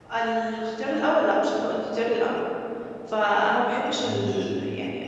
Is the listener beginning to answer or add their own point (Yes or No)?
No